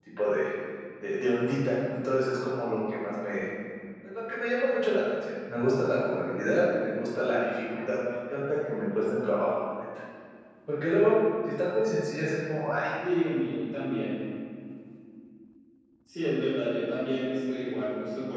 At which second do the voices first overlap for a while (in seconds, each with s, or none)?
none